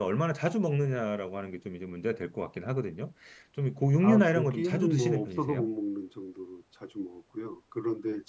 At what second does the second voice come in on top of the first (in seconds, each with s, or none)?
4.0 s